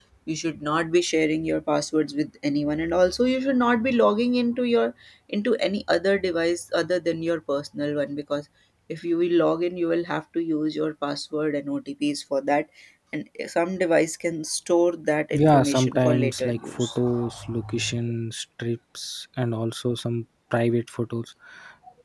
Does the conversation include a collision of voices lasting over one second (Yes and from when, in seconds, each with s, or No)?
Yes, from 15.3 s